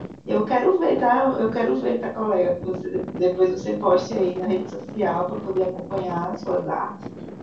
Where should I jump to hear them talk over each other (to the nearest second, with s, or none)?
none